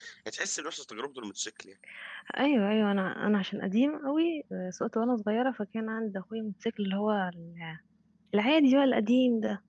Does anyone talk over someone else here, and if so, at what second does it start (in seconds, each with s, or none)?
none